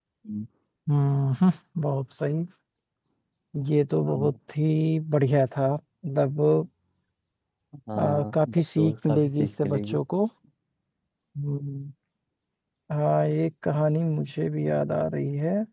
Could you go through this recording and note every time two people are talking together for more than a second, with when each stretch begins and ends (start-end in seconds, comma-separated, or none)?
8.0-10.0